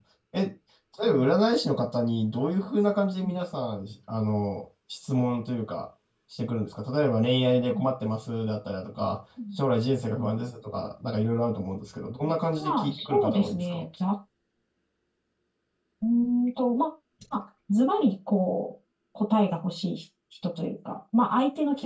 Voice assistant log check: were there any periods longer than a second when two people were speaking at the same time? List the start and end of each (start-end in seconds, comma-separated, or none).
12.6-13.8